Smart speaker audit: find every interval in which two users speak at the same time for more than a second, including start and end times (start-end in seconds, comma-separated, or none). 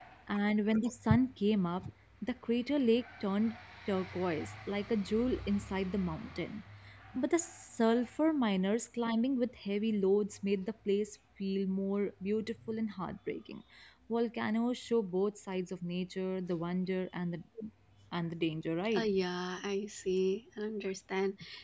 none